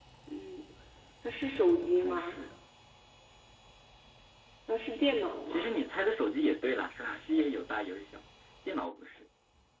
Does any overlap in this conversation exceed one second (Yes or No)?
No